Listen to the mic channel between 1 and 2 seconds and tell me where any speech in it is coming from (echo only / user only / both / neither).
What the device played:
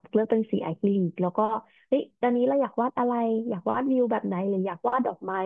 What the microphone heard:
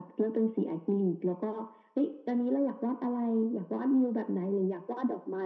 echo only